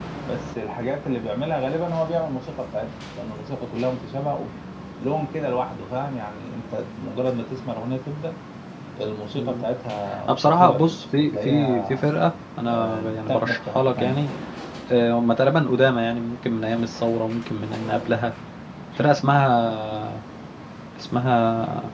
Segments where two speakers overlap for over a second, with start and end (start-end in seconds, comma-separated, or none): 10.3-12.1, 12.7-14.3